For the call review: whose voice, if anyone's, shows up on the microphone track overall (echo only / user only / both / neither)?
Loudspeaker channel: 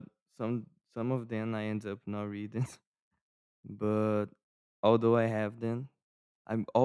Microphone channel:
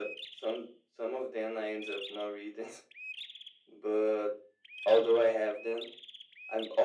echo only